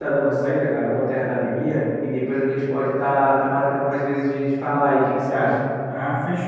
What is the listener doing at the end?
taking over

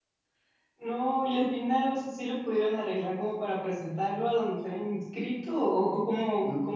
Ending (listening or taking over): taking over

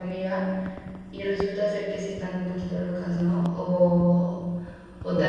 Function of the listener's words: taking over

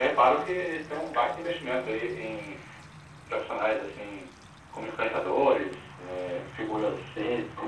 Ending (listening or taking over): taking over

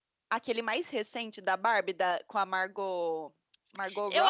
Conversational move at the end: taking over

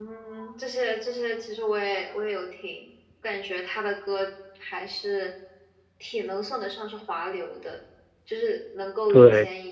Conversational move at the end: listening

